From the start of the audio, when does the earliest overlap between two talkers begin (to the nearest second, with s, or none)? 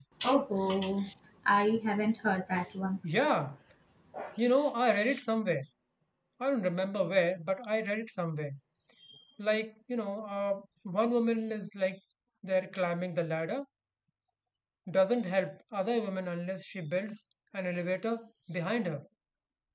none